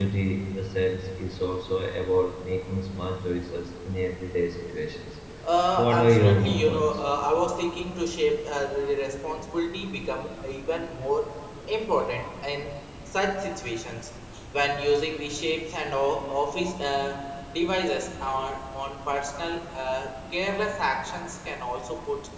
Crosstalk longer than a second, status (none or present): present